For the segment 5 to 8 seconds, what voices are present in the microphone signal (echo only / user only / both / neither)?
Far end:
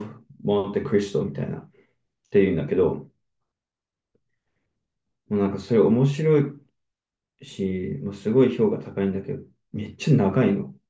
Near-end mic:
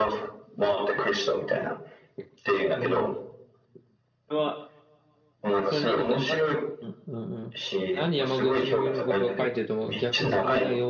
both